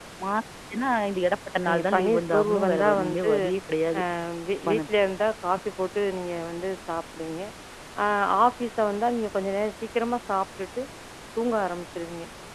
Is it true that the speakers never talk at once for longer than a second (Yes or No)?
No